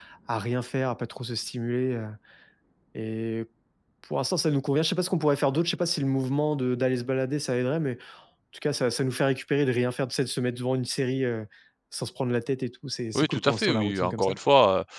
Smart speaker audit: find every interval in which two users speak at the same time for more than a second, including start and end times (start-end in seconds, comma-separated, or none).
13.2-14.4